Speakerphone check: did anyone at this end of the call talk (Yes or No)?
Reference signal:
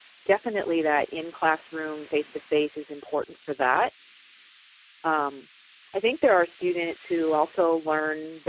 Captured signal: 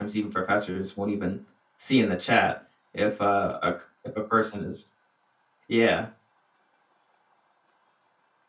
Yes